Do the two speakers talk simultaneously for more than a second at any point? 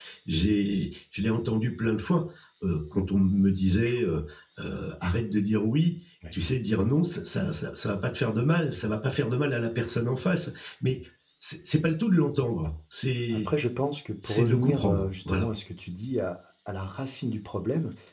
Yes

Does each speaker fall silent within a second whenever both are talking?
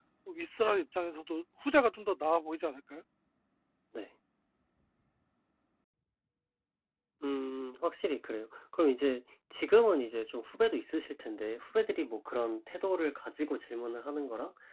Yes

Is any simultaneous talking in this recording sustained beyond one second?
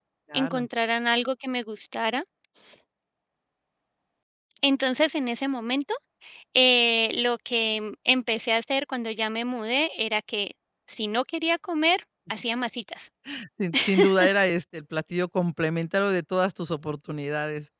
No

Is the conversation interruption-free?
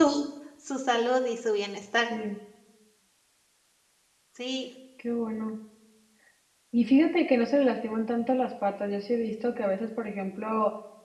Yes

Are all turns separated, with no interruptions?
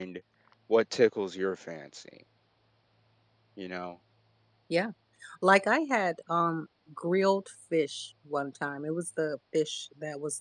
Yes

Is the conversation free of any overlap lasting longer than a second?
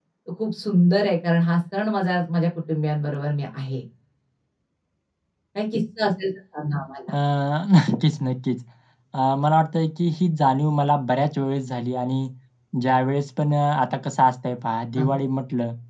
Yes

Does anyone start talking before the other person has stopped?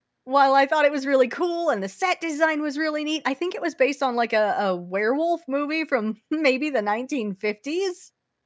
No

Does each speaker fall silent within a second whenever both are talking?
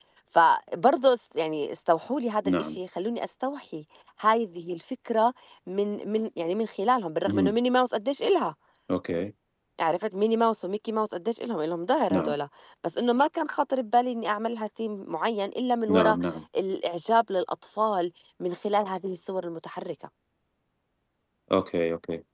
Yes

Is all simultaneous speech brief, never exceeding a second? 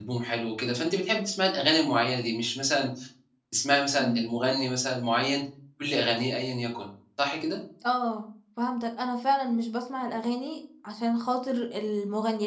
Yes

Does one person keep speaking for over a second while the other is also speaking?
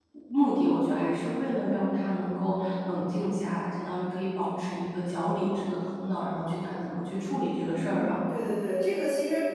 No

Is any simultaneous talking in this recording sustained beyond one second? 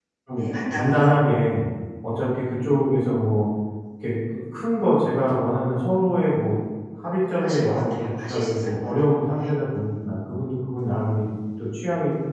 Yes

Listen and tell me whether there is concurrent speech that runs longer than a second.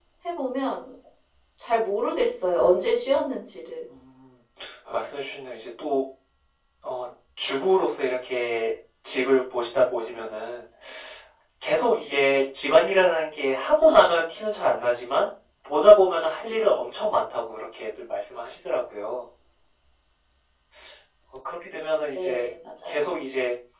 No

